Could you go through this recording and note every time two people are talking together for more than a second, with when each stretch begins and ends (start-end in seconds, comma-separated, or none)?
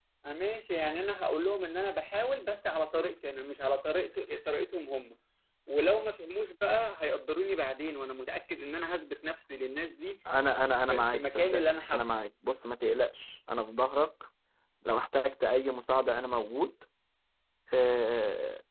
10.9-12.2